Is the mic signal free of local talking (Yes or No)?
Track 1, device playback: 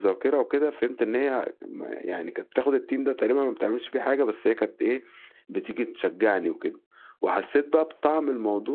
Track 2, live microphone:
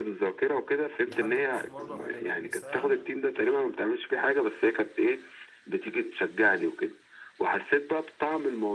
No